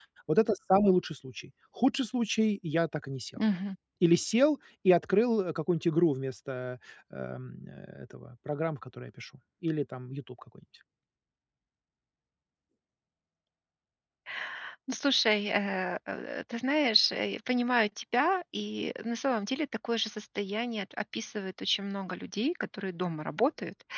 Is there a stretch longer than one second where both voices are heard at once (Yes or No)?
No